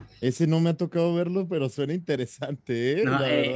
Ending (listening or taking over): taking over